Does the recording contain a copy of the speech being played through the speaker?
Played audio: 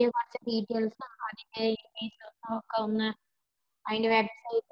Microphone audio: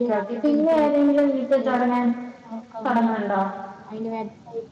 Yes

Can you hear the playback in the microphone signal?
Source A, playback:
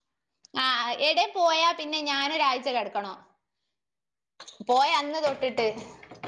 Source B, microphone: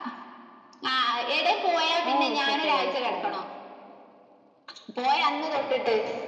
Yes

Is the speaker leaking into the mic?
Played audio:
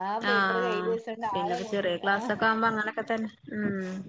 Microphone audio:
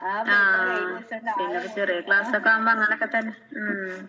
Yes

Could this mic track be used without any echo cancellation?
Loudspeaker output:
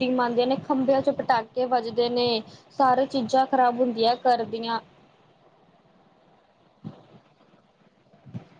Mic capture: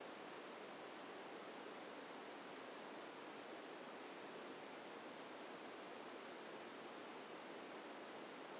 Yes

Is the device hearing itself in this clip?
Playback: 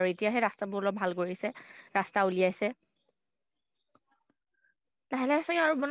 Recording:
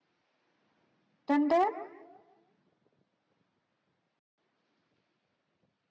No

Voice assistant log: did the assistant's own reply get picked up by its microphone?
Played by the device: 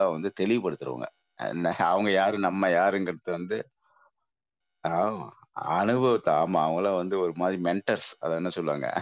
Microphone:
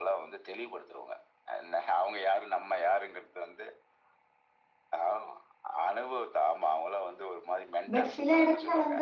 Yes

